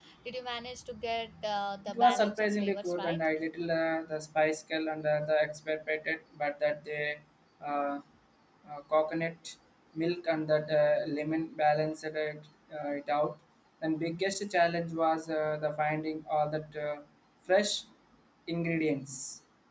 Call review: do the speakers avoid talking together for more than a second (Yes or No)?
No